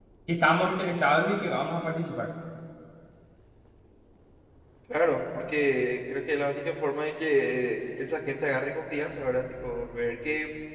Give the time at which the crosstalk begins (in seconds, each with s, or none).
none